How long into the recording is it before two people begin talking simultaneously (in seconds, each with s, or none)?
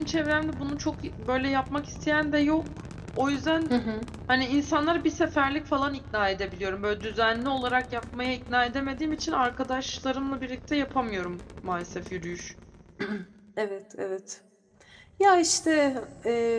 none